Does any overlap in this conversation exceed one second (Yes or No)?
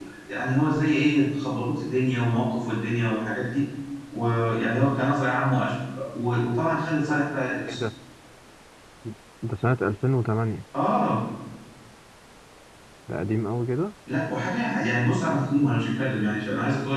No